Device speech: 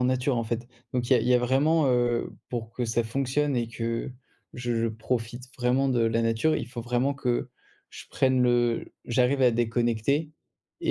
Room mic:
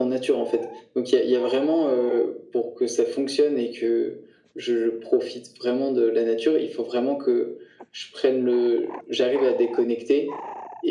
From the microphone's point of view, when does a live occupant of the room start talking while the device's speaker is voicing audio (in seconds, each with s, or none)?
none